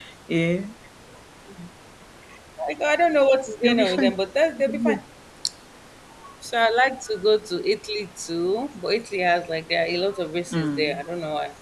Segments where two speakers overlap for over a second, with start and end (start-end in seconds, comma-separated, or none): none